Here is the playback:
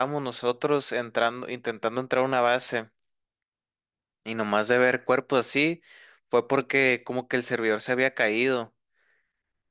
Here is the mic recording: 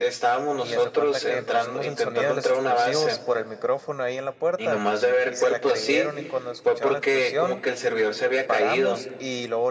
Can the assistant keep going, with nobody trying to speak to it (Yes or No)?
No